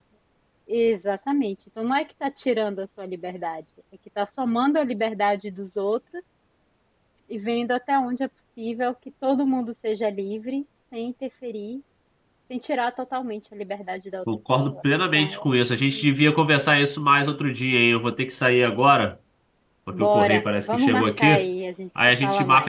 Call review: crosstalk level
present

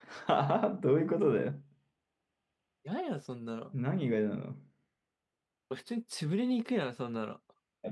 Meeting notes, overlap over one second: none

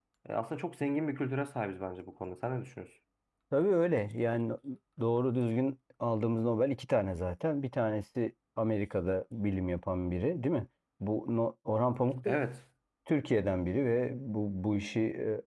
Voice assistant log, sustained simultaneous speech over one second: none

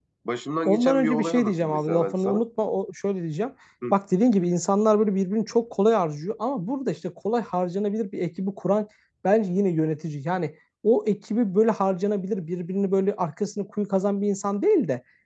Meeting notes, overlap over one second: present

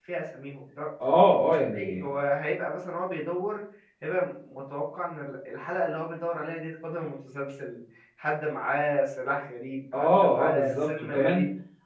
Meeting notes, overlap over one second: present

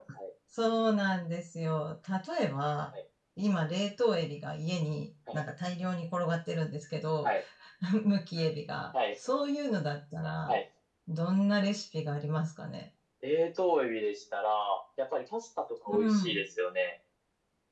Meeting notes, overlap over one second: none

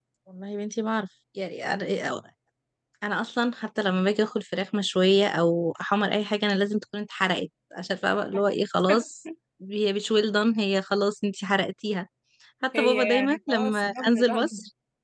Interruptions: present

